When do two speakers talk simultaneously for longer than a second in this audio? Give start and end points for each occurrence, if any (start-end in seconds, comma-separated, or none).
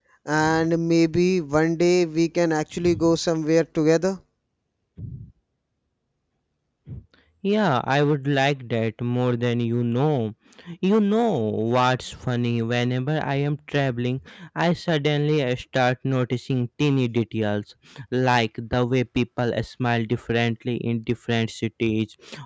none